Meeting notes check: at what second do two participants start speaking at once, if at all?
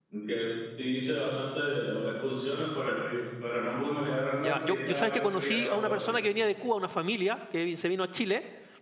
4 s

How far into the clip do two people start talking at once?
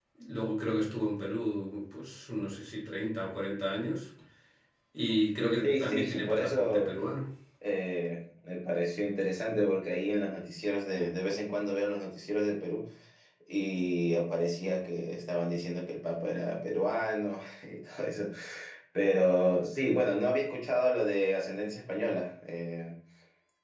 6 s

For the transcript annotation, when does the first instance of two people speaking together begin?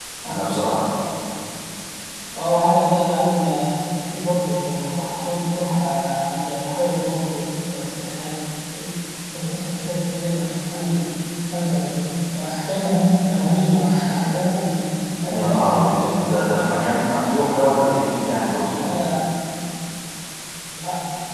15 s

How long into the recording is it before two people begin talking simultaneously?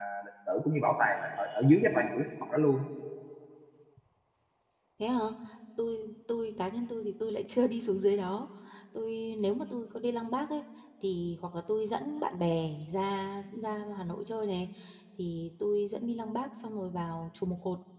none

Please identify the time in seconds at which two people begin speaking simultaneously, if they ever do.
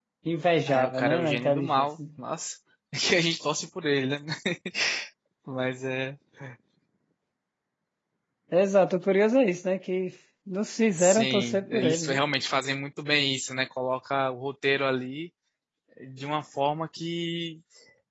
1 s

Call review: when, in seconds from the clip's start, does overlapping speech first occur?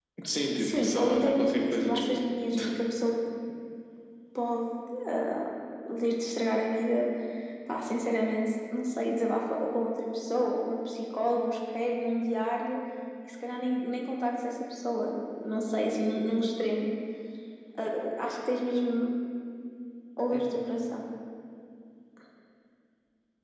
1 s

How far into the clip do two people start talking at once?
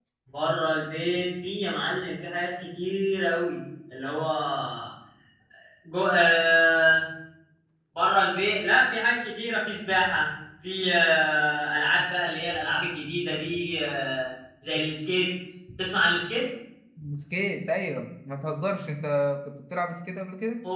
none

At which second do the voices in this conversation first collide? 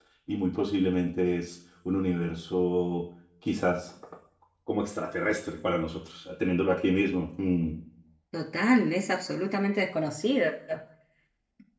none

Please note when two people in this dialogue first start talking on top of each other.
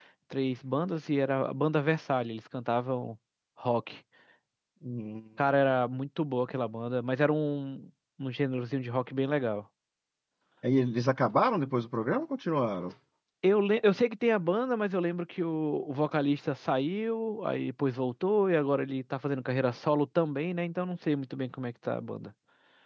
none

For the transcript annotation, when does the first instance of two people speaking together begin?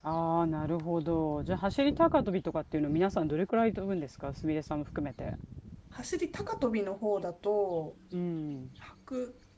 none

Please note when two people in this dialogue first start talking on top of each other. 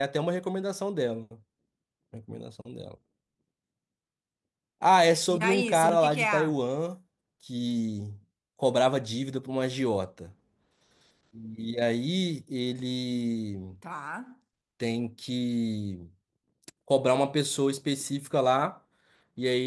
5 s

